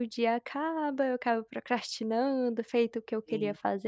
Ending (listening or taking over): listening